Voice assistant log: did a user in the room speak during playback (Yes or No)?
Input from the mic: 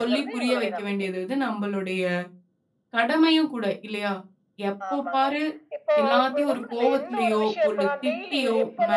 Yes